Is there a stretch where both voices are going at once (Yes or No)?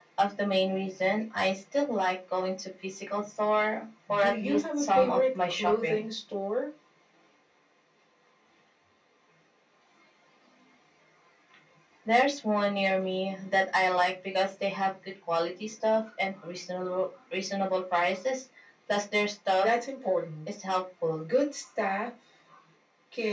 Yes